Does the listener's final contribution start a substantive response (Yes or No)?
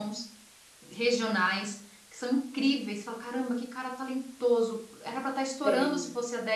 No